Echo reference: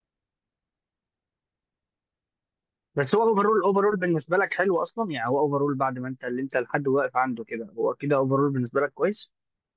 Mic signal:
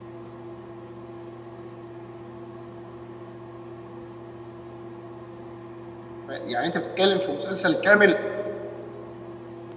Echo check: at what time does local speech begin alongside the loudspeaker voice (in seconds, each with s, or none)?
6.3 s